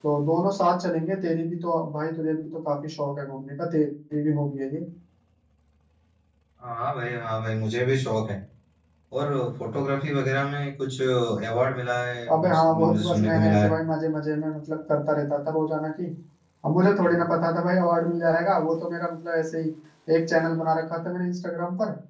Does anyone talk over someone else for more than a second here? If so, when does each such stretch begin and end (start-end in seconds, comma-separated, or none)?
12.3-13.7